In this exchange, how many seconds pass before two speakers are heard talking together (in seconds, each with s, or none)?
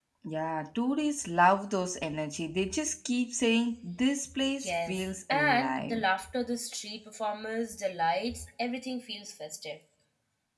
4.6 s